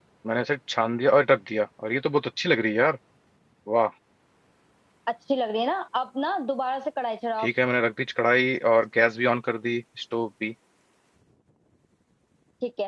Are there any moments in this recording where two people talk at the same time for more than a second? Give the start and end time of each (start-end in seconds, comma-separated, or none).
none